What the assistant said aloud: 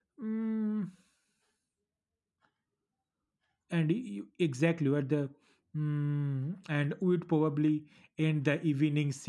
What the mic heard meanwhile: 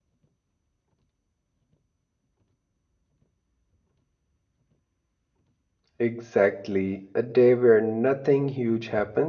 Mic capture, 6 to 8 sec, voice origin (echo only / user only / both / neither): user only